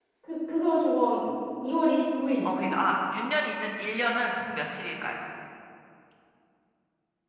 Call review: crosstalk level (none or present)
none